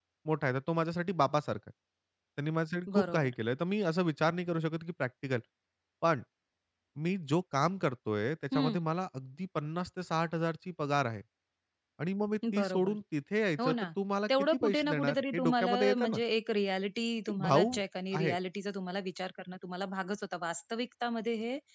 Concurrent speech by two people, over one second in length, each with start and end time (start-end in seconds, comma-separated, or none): 14.3-16.2